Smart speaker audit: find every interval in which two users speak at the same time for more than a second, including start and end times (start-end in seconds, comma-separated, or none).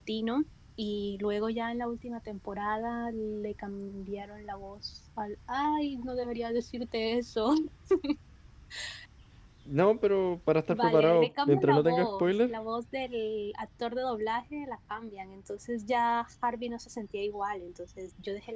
10.7-12.5